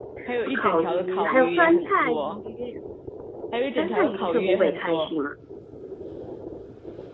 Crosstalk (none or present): present